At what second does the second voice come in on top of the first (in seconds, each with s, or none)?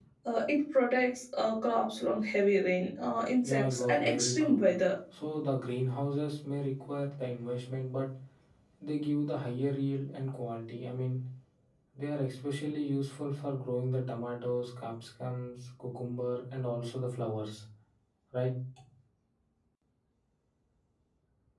3.4 s